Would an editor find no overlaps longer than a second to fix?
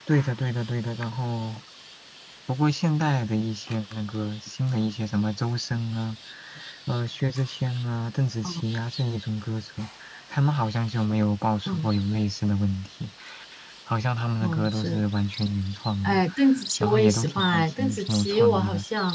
No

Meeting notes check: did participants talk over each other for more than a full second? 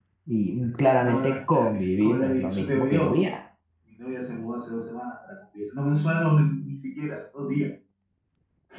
Yes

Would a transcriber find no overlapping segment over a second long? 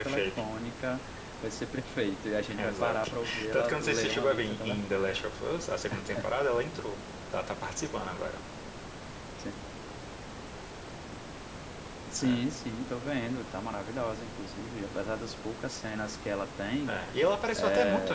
No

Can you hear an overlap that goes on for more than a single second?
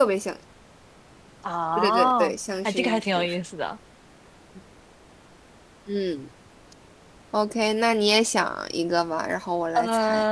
Yes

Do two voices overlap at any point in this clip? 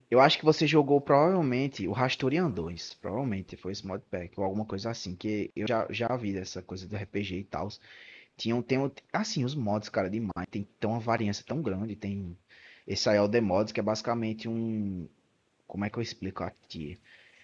No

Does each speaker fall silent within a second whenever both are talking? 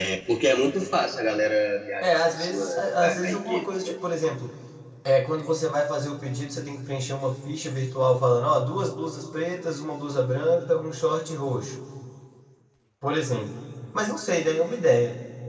No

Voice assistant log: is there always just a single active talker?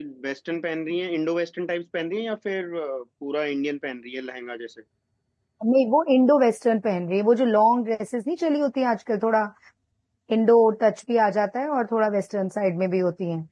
Yes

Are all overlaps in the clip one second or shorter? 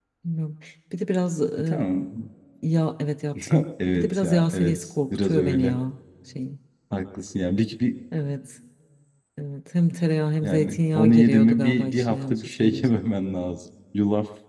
No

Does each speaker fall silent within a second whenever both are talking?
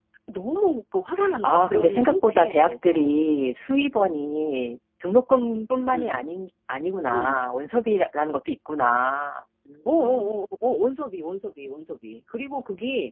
No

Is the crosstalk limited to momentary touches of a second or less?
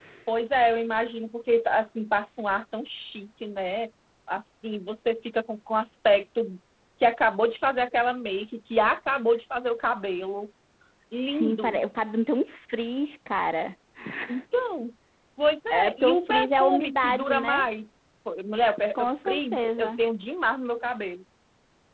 No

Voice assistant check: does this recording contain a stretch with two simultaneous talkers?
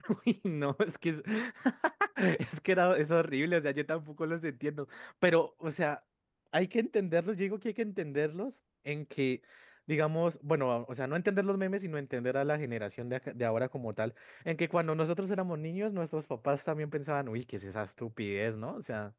No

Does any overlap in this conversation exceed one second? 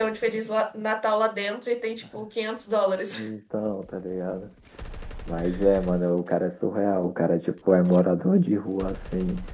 No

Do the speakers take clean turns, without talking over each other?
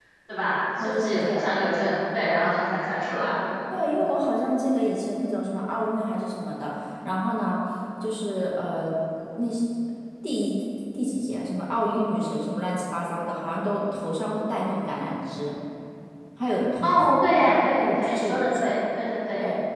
No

